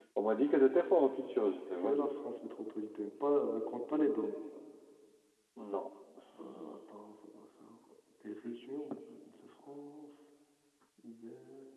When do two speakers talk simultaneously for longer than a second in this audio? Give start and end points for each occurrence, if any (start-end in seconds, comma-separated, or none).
none